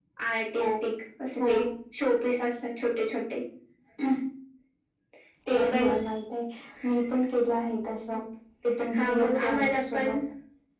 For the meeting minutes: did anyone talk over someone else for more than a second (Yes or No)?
Yes